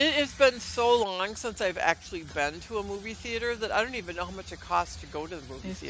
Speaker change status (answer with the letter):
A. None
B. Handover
B